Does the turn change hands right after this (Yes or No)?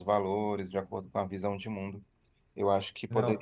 No